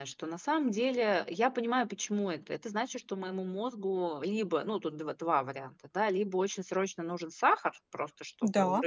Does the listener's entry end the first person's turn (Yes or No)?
No